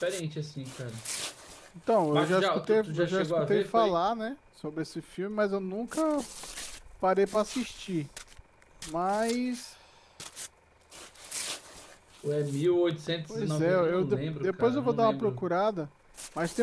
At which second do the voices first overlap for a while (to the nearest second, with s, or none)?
2 s